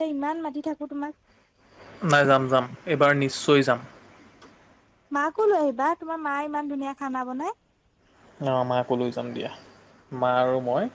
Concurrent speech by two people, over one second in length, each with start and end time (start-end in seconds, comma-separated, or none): none